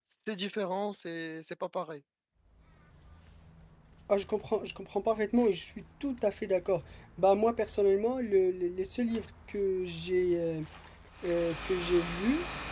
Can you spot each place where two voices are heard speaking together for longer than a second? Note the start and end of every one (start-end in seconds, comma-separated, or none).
none